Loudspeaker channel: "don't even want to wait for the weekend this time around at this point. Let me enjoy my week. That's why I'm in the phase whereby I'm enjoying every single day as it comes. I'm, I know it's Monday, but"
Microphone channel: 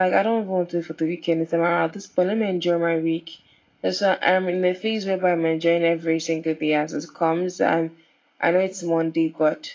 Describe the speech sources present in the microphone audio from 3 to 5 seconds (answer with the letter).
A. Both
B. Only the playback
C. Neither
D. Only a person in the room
B